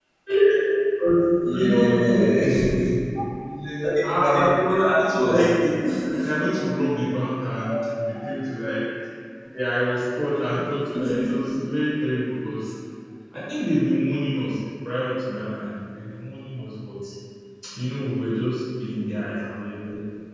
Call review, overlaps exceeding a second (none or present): present